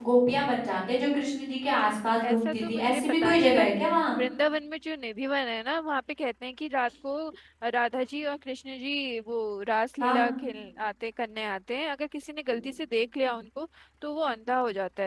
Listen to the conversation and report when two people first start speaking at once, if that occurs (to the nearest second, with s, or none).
2 s